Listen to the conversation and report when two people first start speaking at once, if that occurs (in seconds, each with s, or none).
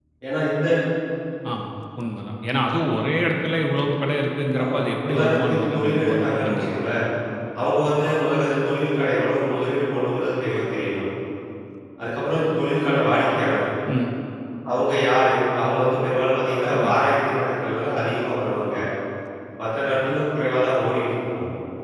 4.6 s